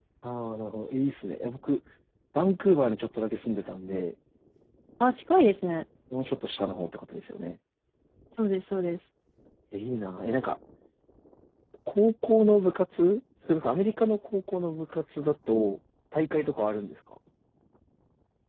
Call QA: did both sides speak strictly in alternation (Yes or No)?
Yes